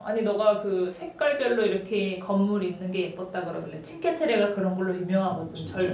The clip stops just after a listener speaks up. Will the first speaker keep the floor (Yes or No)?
Yes